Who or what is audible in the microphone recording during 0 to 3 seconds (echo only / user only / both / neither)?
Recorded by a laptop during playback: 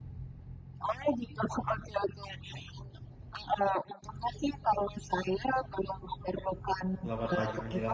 echo only